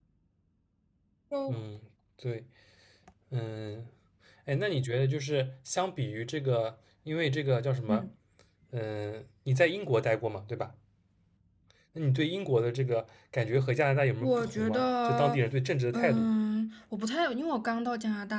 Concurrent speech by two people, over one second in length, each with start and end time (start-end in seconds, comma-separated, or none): 14.2-15.4